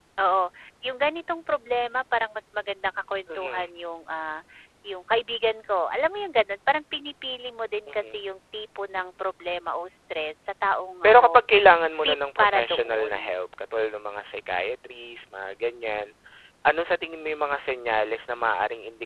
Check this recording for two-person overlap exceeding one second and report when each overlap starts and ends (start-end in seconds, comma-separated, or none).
12.0-13.4